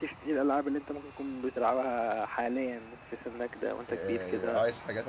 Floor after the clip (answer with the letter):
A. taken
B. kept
A